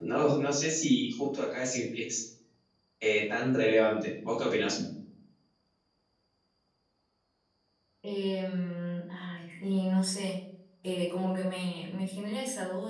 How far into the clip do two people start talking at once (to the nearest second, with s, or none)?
none